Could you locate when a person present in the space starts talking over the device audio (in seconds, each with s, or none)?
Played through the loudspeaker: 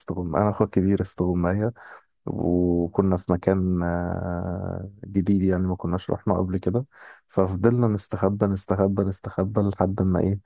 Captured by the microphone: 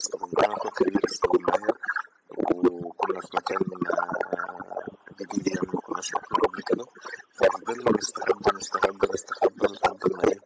none